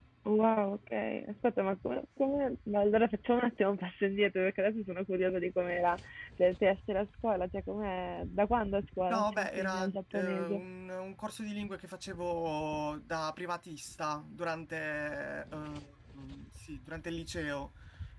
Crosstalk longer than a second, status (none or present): present